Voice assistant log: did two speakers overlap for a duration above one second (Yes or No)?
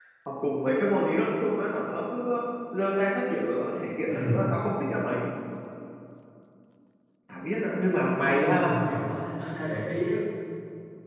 No